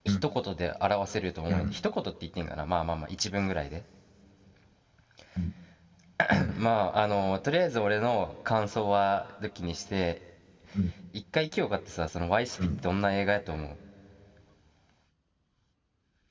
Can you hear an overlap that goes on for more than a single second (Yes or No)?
No